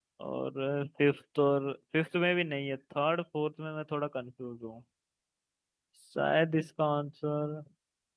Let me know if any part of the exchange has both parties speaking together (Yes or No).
No